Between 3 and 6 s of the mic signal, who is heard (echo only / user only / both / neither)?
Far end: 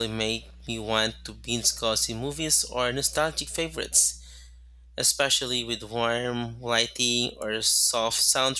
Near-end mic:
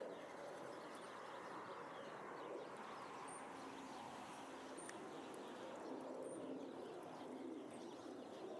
neither